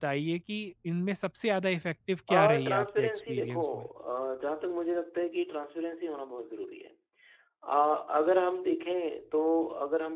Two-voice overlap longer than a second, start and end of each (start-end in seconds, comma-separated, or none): 2.3-3.9